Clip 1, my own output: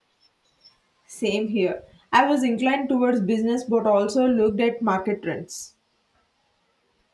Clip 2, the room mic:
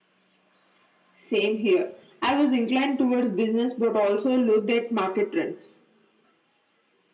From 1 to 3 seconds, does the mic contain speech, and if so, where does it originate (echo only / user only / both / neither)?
echo only